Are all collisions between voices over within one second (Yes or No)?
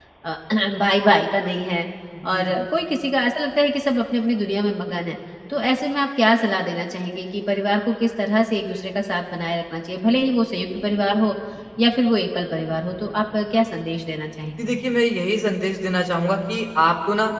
Yes